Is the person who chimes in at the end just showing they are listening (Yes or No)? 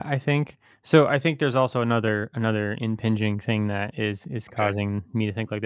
Yes